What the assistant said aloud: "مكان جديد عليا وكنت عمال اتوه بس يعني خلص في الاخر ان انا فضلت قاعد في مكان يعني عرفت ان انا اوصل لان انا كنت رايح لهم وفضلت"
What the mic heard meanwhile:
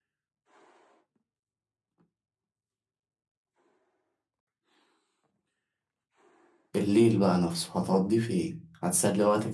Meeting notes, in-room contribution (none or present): present